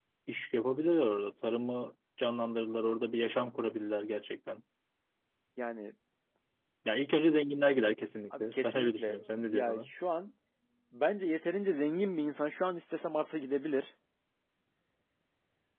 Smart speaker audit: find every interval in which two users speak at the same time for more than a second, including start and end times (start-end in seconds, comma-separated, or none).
8.4-9.8